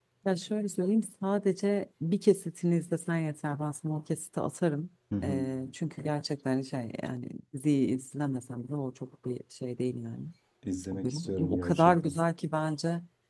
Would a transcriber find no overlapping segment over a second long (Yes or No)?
No